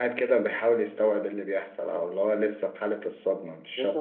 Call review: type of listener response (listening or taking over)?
taking over